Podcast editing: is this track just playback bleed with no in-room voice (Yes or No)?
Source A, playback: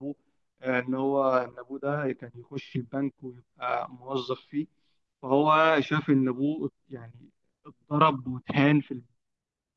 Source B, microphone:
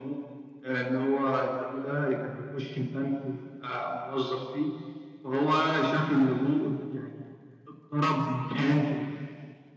Yes